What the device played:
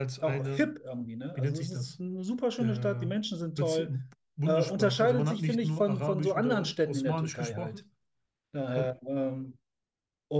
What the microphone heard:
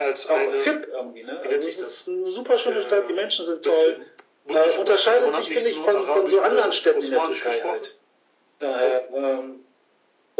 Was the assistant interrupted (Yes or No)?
No